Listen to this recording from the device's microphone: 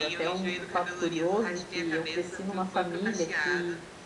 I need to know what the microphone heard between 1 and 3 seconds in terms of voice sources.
both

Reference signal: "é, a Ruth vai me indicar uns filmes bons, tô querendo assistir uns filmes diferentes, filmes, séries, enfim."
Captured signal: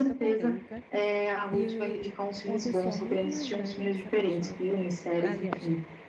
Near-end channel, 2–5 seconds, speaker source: both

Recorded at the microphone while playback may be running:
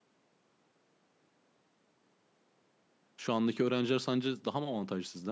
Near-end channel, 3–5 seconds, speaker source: user only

